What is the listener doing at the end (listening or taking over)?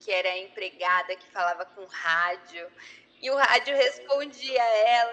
listening